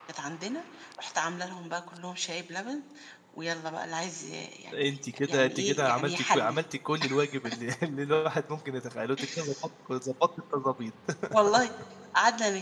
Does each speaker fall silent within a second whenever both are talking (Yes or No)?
No